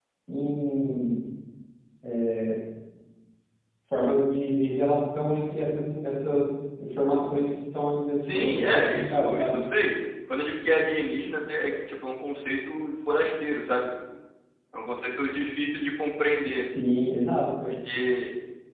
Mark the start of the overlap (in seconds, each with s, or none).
8.3 s